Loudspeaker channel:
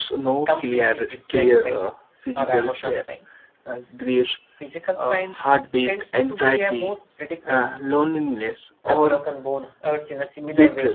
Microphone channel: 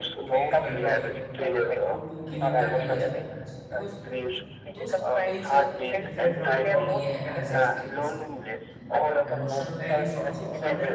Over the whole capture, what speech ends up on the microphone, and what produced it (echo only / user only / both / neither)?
both